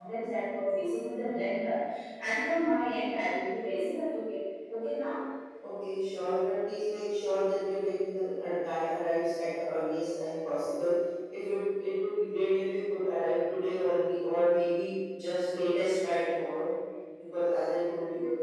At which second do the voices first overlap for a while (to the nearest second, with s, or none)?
none